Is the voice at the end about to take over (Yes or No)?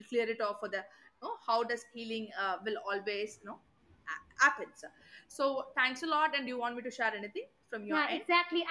Yes